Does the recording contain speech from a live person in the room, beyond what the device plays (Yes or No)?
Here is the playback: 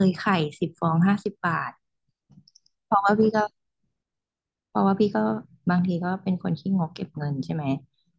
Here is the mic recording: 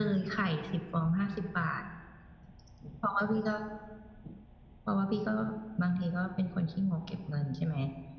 No